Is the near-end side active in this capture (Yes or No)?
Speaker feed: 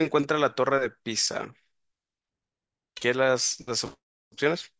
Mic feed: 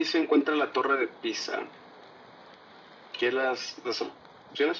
No